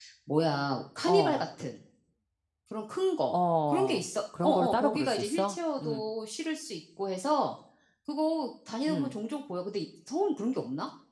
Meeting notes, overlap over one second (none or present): present